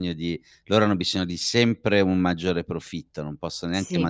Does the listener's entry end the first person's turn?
No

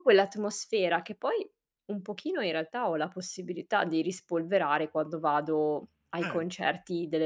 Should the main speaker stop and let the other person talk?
No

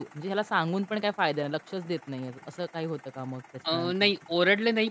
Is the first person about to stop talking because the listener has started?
Yes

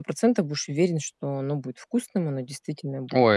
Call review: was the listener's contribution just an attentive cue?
No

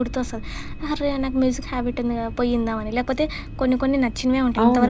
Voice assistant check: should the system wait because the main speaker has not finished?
No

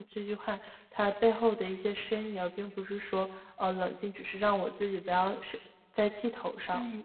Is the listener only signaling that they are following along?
No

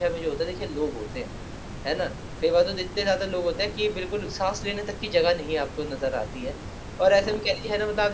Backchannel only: Yes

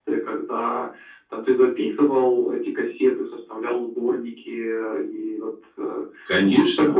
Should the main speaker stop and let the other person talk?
Yes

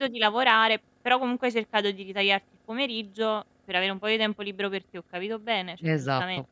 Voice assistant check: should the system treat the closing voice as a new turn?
Yes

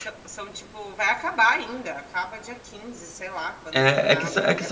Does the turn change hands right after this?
Yes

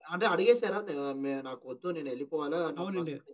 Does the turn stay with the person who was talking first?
No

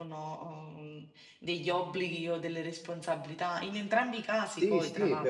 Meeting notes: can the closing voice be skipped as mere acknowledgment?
No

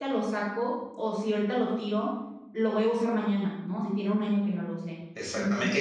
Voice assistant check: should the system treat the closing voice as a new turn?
Yes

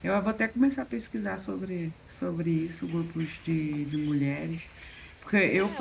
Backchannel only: No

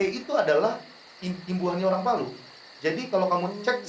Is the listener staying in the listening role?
Yes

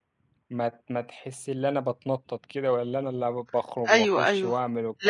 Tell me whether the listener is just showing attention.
No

